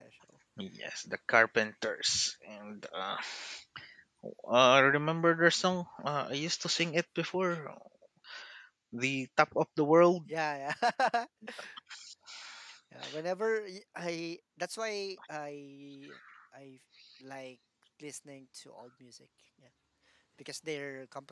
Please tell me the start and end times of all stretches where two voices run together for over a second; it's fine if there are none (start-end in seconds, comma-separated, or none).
none